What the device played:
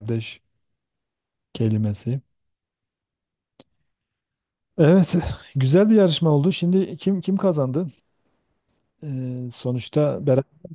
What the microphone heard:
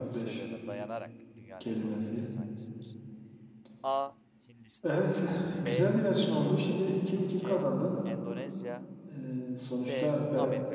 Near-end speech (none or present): present